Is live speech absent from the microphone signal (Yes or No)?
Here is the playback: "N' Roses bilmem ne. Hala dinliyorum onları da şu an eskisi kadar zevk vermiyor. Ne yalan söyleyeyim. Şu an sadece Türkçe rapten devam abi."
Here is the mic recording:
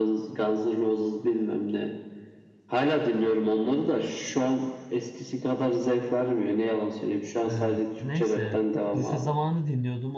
No